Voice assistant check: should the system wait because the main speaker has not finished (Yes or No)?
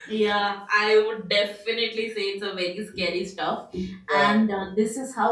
Yes